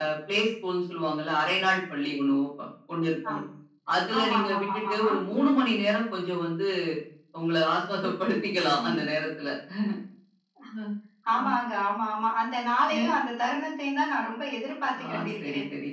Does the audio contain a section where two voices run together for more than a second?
Yes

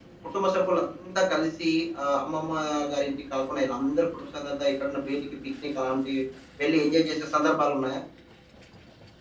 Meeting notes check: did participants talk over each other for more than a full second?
No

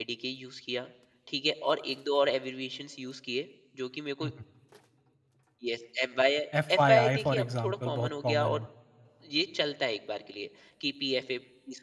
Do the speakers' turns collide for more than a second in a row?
Yes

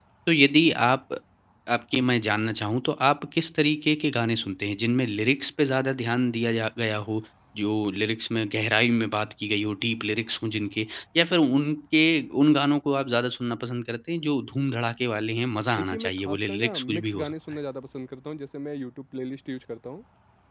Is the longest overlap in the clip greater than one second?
Yes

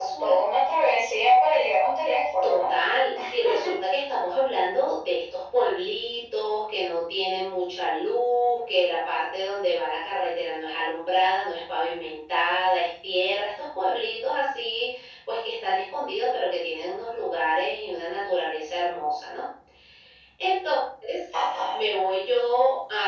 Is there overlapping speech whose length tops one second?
No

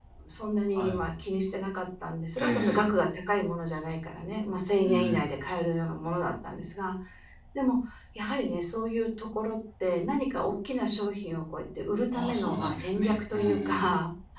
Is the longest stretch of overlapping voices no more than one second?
No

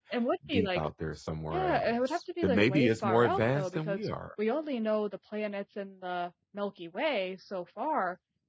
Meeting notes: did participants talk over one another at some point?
Yes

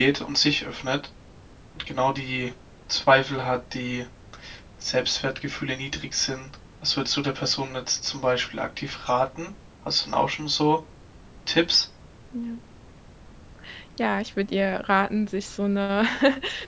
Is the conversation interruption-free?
Yes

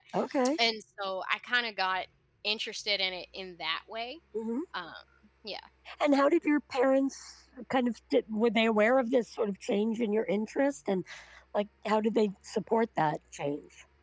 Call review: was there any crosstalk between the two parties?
No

